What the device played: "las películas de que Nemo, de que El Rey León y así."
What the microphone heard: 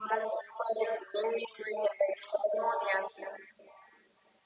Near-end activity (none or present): none